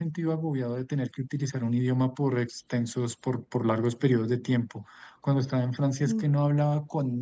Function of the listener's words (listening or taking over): listening